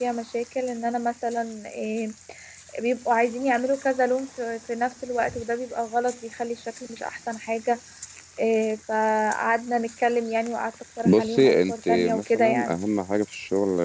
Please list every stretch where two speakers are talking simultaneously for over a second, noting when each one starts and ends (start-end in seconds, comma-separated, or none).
11.1-12.7